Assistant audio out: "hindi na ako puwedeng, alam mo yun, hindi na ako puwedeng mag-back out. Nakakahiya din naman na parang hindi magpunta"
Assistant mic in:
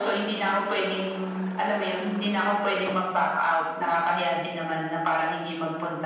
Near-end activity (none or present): none